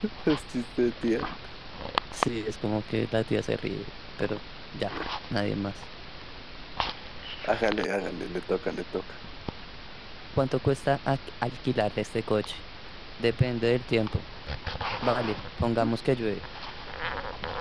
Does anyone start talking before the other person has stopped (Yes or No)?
No